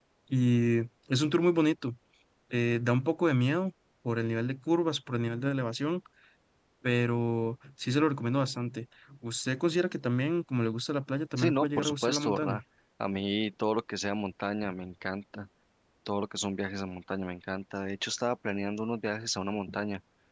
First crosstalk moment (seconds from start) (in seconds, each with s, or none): 11.4 s